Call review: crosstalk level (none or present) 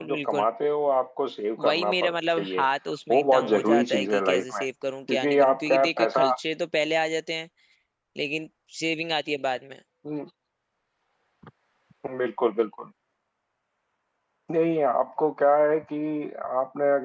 present